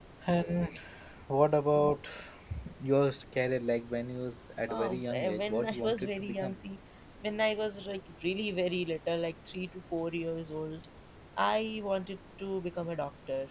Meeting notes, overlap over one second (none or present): present